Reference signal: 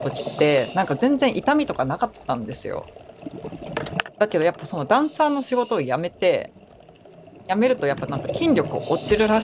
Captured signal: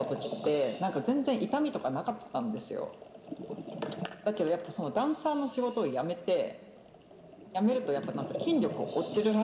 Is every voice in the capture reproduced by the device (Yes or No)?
Yes